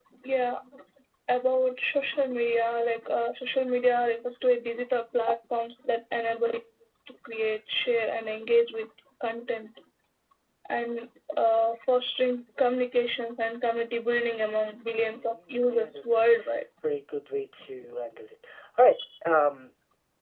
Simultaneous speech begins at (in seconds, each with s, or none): 15.1 s